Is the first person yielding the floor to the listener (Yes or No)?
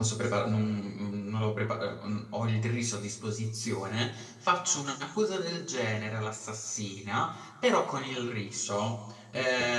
No